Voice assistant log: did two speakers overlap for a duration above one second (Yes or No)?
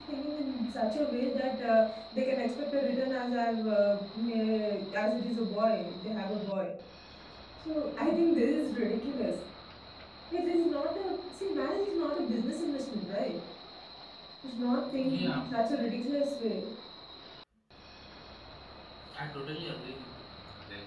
No